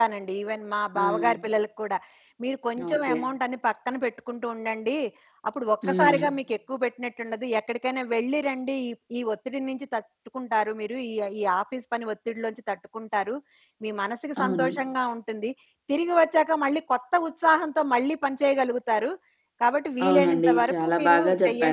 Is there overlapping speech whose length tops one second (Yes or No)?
Yes